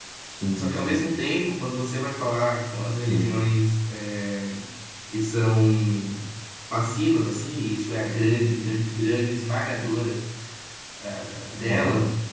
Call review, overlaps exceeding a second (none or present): none